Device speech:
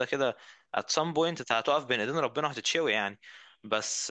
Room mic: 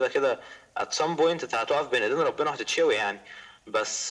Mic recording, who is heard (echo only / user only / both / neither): echo only